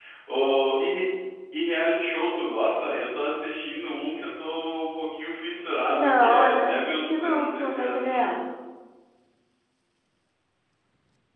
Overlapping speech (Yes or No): Yes